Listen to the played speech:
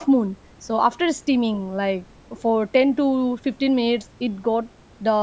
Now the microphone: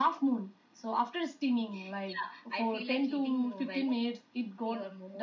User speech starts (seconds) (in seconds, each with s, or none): 1.5 s